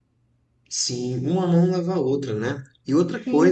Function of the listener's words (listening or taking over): listening